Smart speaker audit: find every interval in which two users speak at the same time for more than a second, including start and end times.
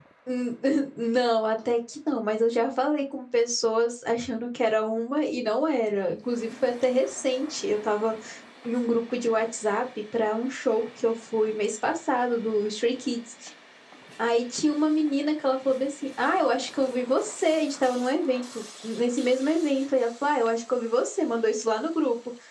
none

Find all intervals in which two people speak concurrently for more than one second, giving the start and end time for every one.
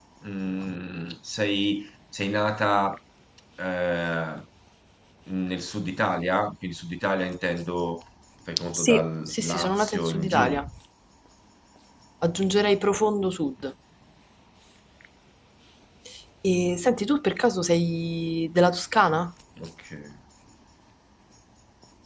8.7-10.6

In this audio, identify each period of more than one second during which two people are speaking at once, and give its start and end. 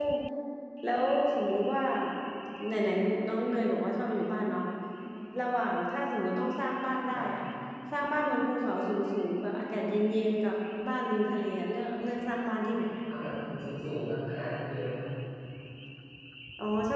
none

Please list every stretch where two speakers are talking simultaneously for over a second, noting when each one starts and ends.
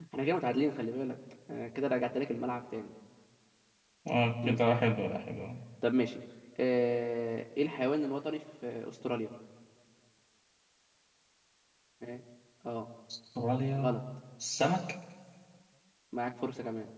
none

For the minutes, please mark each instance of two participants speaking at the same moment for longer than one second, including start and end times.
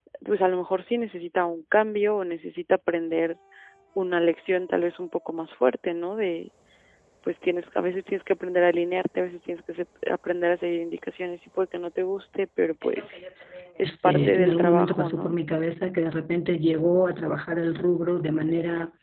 13.8-15.4

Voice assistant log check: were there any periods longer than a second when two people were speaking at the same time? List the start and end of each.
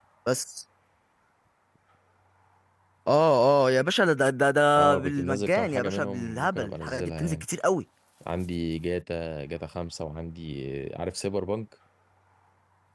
4.8-7.4

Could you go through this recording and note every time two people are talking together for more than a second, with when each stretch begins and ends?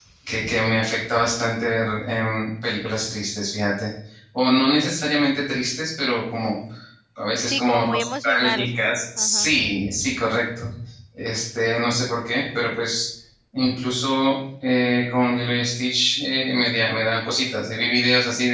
7.5-8.7

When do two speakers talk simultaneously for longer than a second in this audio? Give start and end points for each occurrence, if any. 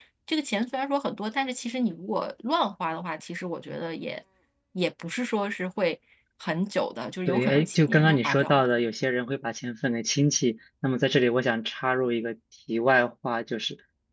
7.3-8.6

